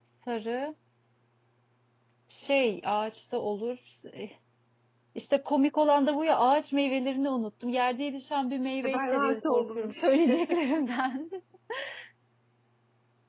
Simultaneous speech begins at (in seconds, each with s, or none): 8.8 s